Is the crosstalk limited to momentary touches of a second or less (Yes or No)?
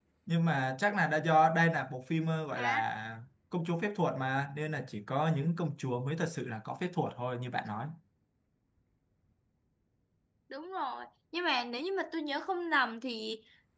Yes